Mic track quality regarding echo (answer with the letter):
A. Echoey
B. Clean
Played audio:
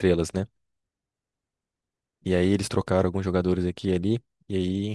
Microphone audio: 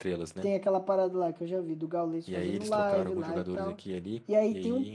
A